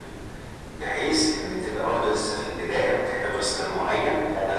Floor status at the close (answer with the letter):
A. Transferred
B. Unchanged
B